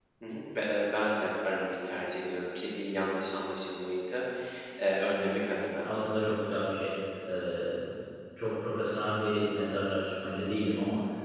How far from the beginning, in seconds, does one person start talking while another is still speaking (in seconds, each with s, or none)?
none